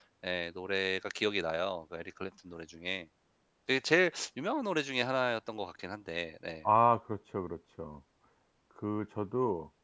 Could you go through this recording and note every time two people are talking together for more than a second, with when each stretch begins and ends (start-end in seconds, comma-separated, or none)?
none